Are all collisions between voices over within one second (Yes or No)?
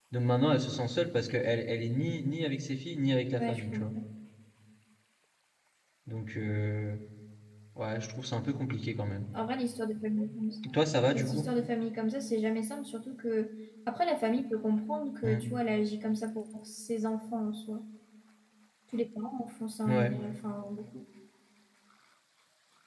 Yes